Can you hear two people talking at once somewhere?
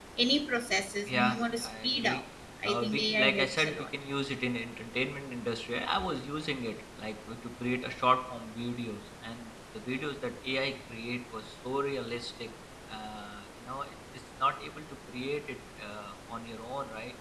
Yes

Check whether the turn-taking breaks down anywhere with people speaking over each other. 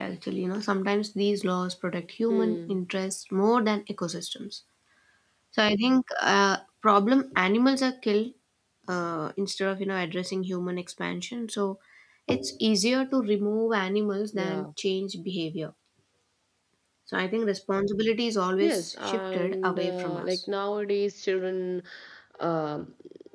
Yes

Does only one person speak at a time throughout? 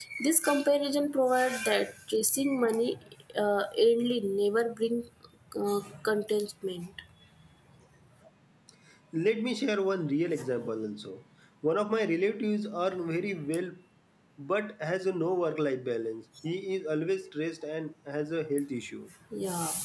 Yes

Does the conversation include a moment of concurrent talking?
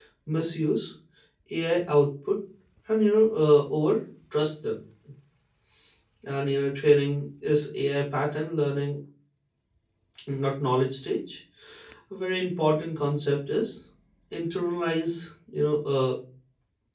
No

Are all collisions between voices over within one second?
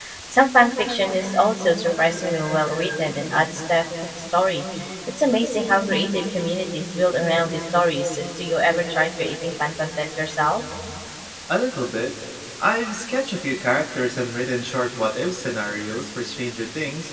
Yes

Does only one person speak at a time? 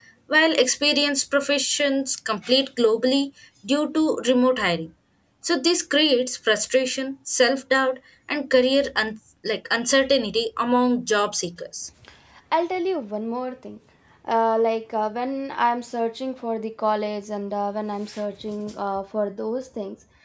Yes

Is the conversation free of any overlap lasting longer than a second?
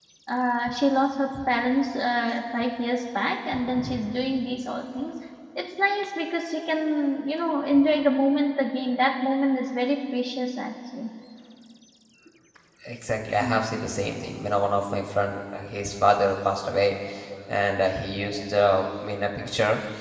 Yes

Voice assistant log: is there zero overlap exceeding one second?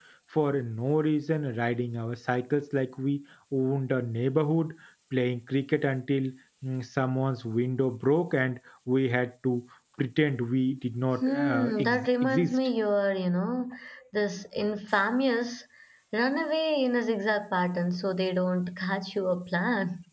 No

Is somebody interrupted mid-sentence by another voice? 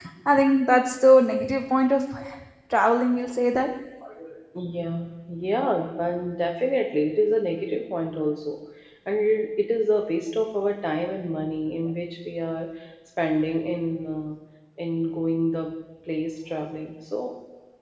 No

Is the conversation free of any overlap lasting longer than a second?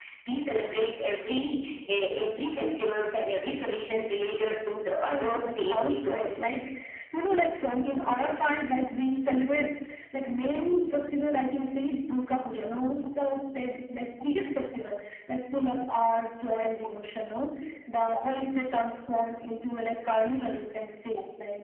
No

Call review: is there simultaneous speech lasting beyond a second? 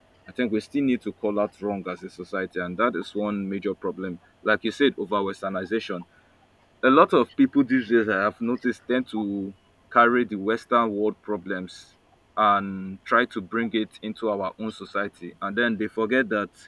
No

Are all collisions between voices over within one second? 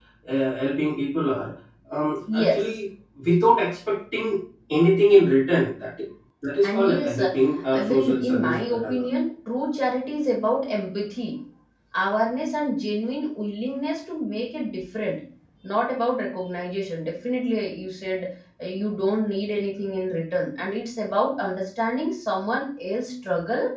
No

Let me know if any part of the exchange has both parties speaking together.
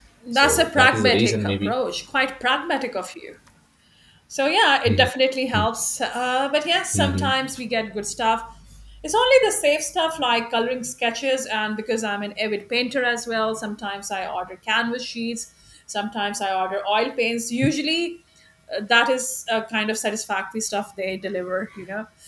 Yes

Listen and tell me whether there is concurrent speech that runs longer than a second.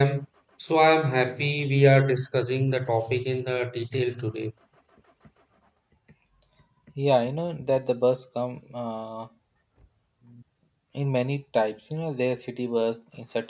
No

